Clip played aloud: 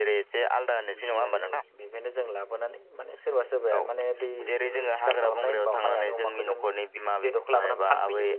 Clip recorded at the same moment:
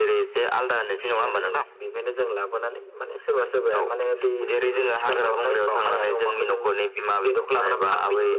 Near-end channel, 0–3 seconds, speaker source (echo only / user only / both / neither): echo only